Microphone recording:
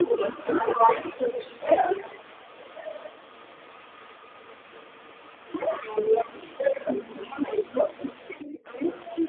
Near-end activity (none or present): none